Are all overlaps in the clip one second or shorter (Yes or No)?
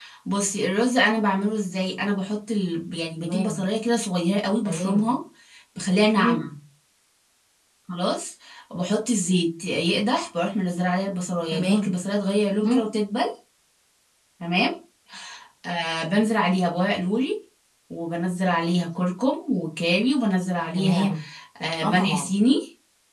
Yes